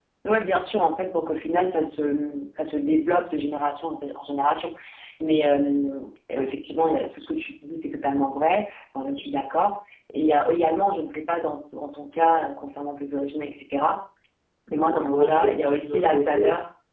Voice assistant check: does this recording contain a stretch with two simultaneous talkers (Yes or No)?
Yes